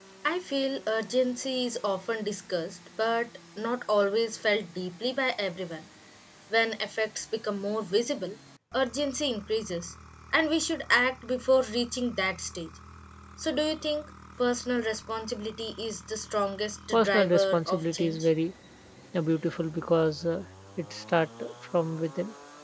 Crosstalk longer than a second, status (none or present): present